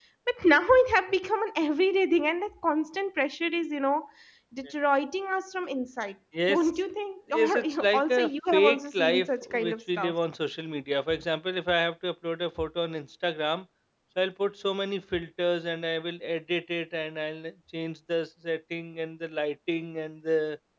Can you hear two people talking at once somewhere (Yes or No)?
Yes